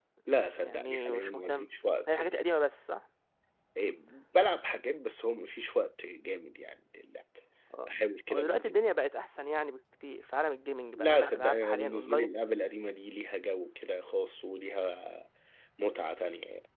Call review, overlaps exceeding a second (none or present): present